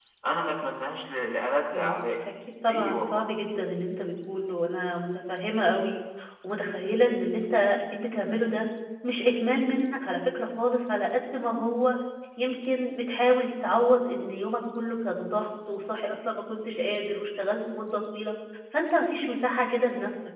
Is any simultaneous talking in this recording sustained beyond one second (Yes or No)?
No